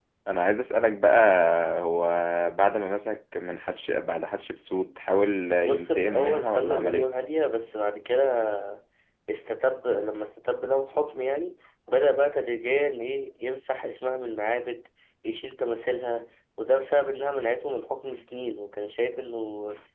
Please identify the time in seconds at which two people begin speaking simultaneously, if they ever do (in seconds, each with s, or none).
5.6 s